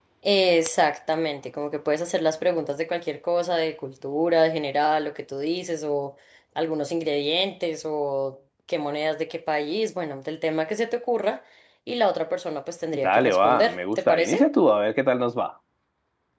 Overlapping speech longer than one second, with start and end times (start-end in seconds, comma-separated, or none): 13.1-14.4